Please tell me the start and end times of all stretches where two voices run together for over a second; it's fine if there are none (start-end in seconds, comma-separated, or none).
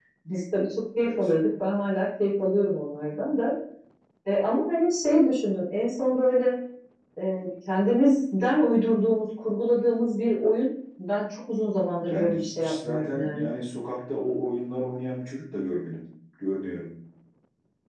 12.1-13.5